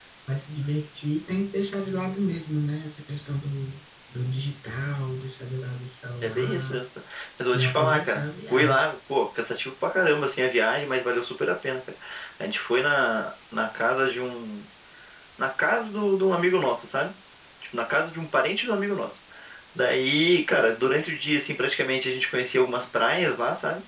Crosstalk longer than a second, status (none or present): present